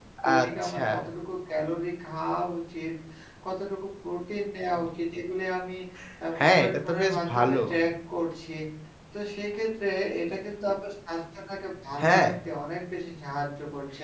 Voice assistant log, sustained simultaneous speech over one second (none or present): present